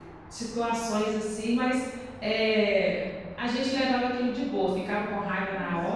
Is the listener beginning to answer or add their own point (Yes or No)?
No